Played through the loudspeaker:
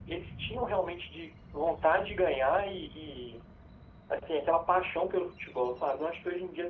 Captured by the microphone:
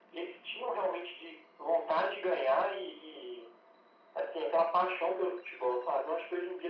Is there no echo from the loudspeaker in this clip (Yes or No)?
No